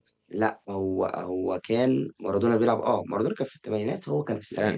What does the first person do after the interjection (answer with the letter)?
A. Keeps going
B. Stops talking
B